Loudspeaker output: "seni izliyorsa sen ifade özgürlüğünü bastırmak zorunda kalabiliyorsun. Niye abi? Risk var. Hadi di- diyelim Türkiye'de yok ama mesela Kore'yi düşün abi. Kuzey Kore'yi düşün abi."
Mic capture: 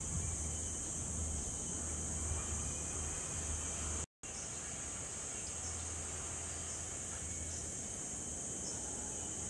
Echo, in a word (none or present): none